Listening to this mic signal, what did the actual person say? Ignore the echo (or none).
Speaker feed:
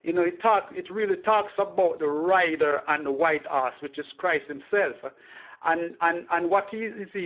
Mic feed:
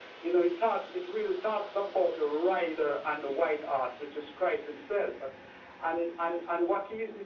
none